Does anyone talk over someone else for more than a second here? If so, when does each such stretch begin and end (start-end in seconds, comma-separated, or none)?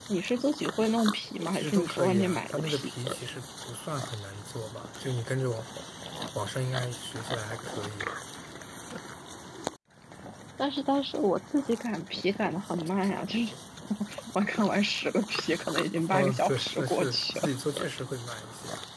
1.5-2.9, 15.9-17.5